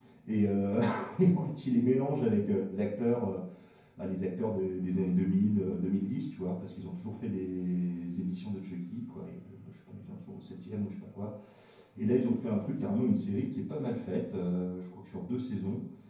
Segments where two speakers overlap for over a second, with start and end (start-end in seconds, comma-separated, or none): none